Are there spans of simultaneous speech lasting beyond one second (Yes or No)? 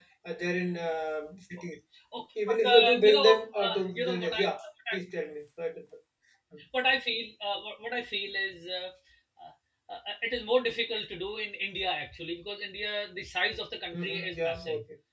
Yes